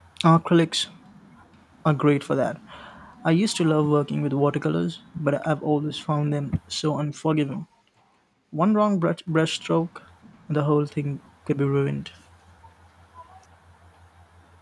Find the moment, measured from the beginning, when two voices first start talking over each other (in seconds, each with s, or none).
none